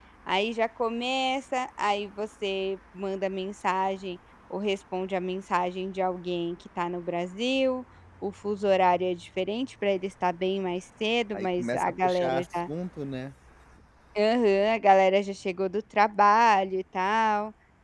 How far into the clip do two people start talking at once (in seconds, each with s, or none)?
11.3 s